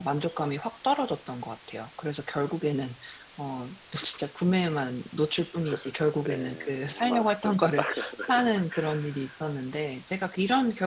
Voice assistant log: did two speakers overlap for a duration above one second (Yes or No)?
Yes